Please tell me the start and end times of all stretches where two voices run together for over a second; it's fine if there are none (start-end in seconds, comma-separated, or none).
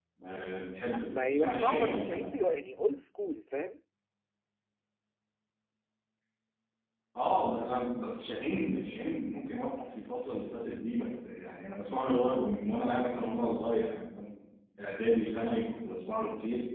1.1-2.3